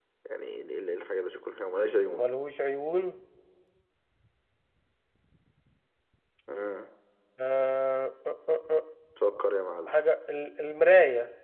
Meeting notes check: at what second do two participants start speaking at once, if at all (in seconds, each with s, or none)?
none